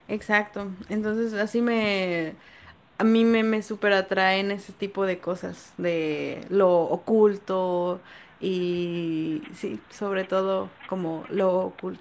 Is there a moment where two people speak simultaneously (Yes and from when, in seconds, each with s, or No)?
No